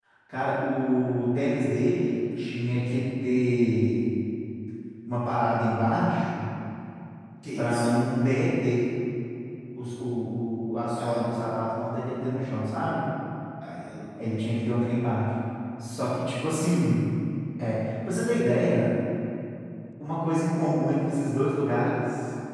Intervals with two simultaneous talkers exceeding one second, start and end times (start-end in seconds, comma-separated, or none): none